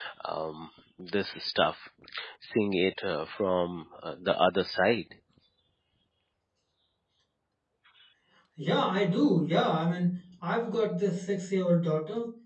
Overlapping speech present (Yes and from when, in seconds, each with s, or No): No